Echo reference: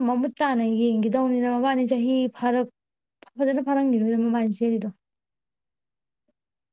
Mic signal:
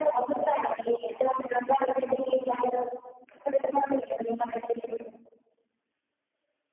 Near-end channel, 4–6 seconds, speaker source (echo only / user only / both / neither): echo only